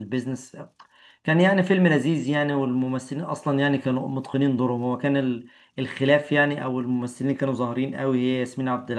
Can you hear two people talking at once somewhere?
No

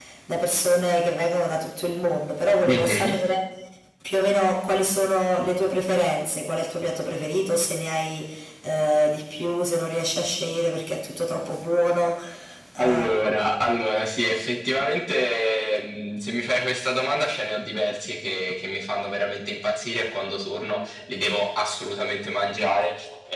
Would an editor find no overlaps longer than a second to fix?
Yes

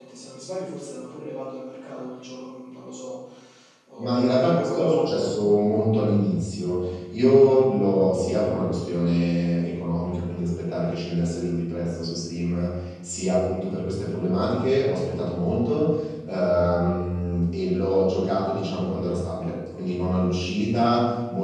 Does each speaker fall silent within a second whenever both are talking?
No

